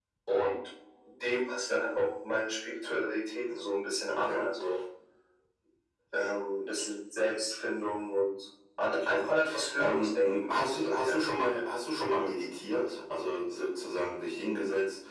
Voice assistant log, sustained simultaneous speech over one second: present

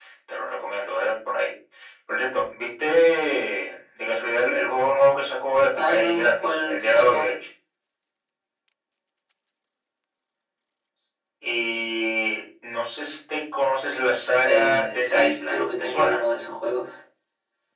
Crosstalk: present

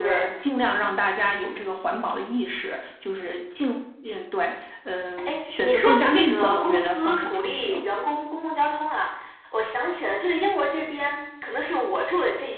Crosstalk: present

